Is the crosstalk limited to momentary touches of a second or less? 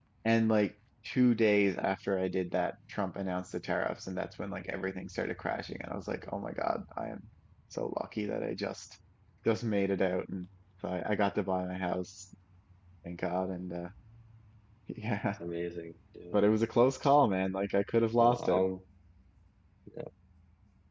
Yes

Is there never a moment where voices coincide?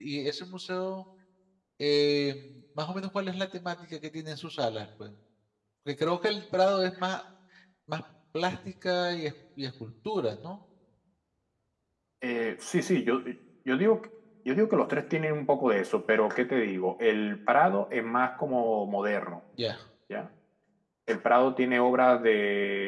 Yes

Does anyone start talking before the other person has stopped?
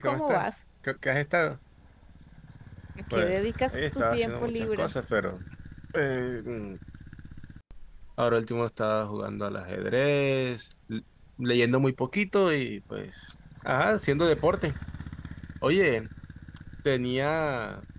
Yes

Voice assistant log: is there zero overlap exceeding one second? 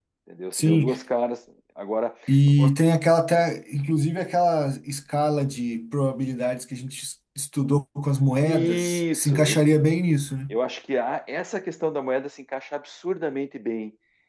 No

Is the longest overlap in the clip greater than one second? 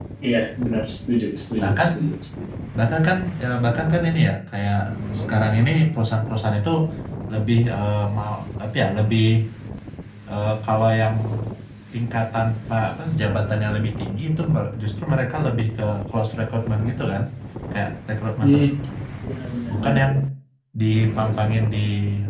No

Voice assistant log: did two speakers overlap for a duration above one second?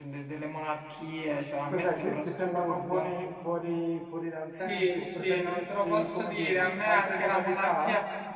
Yes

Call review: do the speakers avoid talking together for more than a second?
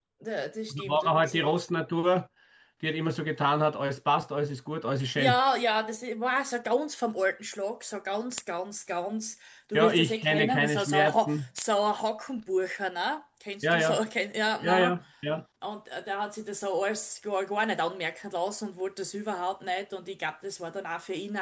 No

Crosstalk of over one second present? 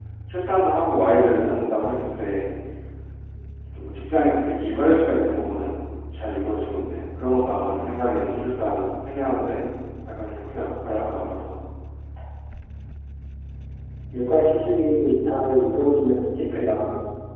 No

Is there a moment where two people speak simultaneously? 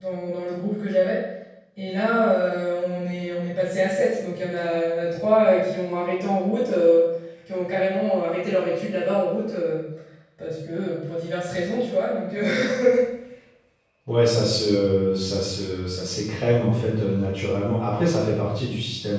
No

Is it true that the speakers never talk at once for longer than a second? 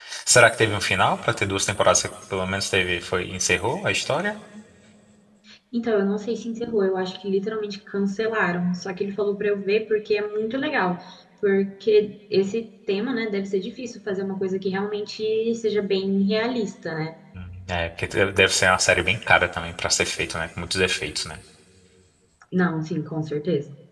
Yes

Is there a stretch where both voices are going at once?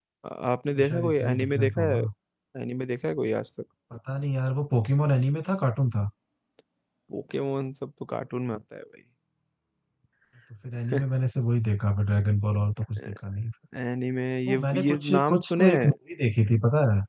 Yes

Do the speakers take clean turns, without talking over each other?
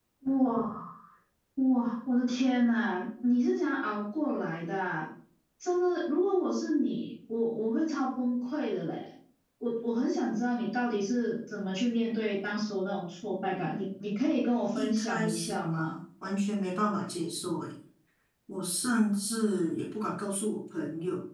No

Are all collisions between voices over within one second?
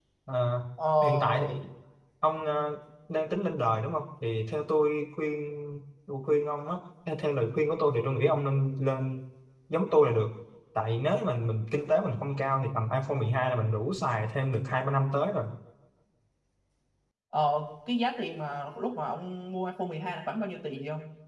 Yes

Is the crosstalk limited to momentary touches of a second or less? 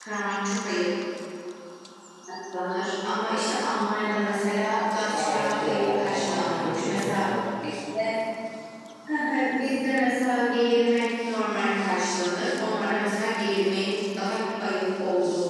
No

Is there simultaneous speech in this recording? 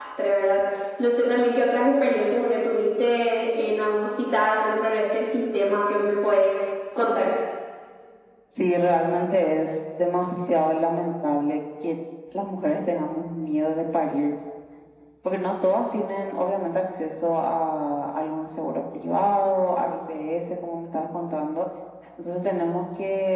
No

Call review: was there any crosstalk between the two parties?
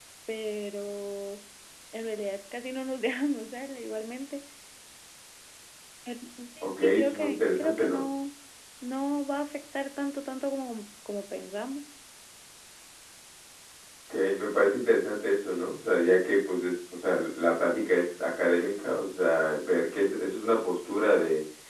Yes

